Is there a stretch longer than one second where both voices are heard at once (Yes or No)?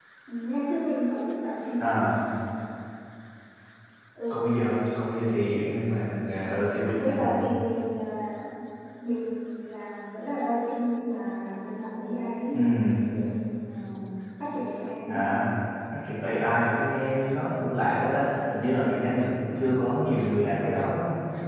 No